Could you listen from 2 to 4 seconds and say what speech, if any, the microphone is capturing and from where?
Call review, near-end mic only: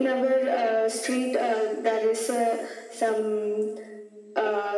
echo only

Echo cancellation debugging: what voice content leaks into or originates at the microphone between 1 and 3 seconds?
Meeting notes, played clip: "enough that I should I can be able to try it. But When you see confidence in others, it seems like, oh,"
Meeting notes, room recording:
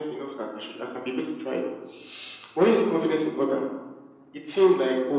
echo only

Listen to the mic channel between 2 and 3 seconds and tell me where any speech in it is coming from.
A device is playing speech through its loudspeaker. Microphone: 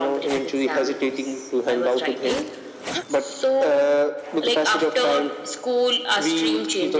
echo only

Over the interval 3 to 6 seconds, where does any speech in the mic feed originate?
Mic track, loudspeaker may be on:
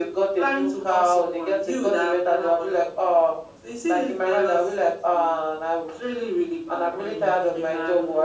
echo only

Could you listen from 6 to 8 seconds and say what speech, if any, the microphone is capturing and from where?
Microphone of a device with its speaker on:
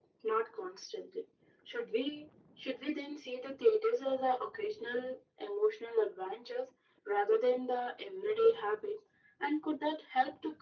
echo only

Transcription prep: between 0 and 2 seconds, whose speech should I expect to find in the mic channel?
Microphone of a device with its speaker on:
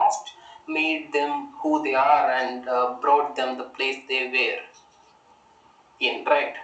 echo only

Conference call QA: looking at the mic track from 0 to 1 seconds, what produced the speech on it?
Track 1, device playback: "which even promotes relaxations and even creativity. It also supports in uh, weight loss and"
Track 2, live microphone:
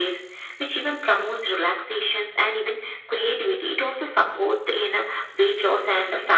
echo only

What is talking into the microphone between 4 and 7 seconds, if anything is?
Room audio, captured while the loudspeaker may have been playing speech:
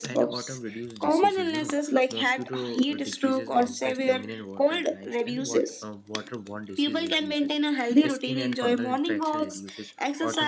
both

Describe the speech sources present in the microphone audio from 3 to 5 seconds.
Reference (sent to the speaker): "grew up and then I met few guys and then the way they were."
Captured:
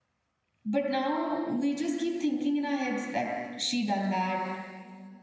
user only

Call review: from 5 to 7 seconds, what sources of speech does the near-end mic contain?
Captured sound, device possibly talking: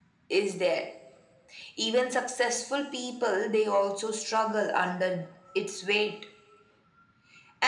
echo only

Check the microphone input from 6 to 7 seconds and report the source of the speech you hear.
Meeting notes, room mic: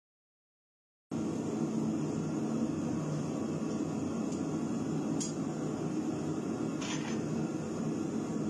neither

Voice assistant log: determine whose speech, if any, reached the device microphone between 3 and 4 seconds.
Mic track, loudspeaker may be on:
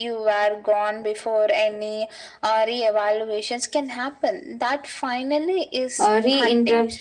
echo only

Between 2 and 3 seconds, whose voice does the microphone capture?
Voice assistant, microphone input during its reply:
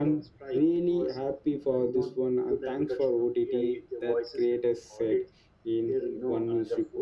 echo only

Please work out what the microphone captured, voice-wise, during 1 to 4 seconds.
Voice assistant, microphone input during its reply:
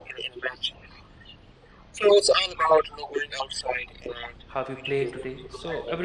echo only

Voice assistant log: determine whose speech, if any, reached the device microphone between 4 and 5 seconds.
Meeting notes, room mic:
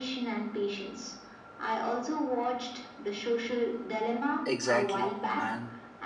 both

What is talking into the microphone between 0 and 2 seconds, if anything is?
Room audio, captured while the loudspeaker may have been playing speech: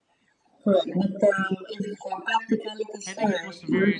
echo only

